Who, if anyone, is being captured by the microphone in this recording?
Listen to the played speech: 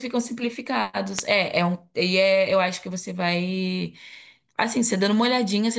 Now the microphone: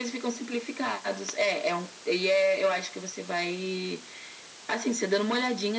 echo only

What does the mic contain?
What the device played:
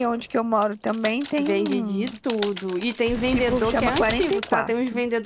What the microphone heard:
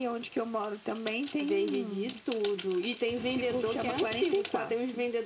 echo only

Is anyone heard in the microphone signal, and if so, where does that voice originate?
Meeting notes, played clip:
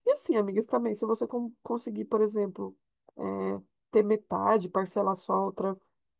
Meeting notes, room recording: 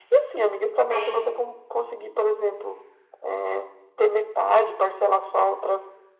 both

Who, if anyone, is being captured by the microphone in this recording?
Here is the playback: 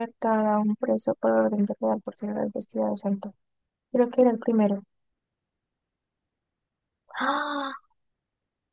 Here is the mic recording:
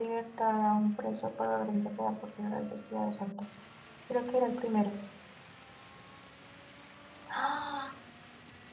echo only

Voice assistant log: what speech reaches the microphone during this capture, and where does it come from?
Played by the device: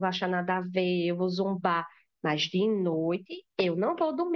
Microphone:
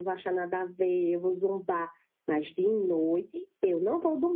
echo only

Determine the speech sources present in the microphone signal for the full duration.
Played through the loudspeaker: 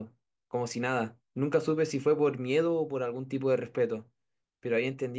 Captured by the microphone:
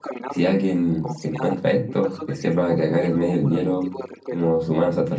both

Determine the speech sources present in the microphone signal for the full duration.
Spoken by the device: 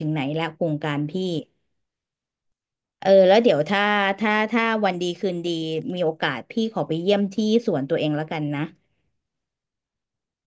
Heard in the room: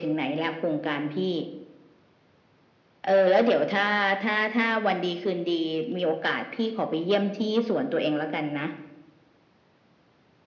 echo only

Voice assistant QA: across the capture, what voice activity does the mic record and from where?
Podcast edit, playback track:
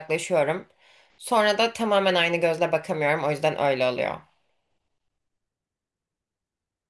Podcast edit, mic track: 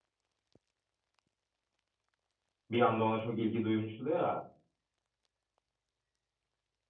user only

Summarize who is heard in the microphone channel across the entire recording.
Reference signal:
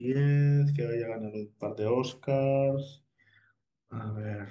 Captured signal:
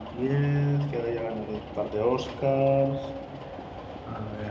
echo only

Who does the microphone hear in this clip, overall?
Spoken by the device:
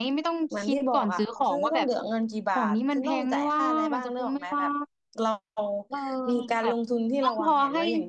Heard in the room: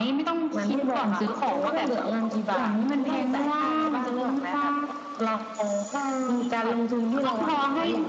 echo only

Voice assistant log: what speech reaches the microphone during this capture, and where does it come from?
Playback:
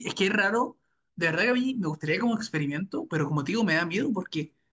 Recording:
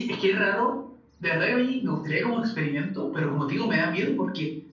echo only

